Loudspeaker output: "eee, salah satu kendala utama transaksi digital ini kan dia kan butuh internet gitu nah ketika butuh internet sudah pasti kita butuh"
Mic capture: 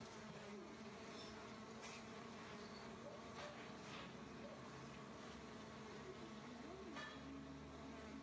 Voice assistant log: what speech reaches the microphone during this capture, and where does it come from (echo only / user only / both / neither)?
neither